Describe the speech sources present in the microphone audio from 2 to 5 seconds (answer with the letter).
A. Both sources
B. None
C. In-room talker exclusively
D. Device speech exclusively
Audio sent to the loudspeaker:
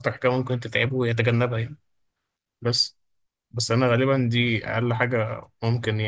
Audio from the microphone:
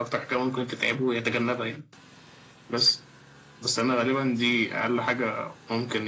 D